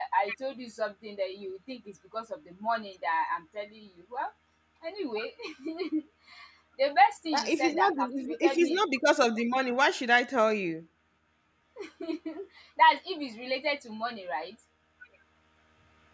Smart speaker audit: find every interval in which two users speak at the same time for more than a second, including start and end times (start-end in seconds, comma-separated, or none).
7.3-8.8